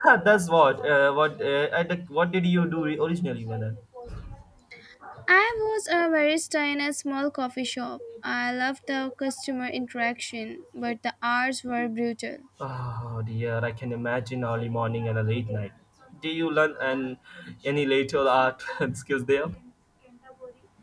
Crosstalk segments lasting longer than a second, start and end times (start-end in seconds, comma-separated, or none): none